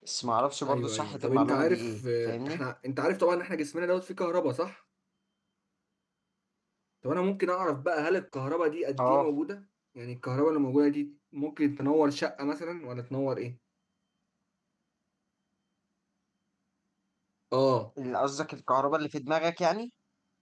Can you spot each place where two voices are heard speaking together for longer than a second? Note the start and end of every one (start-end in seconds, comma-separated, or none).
0.7-2.6